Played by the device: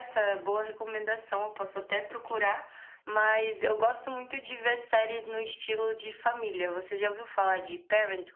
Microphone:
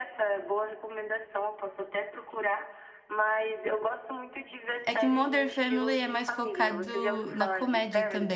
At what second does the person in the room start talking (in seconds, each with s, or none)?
4.8 s